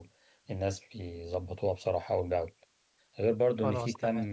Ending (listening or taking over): listening